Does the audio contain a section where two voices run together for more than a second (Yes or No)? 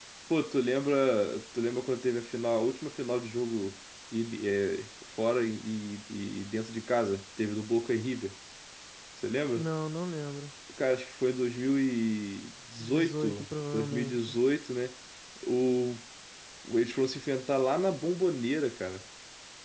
Yes